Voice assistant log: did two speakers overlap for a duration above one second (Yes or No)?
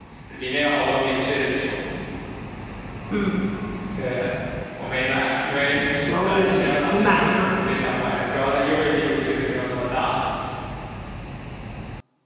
Yes